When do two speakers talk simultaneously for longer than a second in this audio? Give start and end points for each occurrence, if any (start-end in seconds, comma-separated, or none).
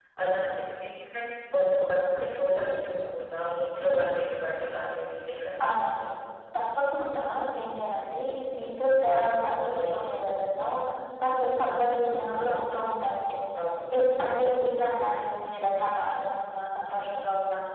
none